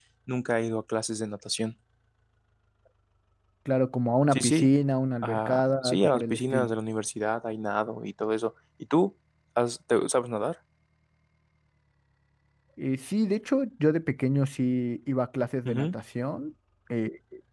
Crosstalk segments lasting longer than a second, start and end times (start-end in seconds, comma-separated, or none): 5.2-6.7